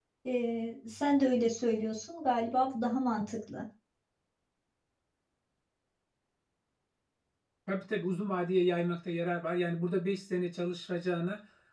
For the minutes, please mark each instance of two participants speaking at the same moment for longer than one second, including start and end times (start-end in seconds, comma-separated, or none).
none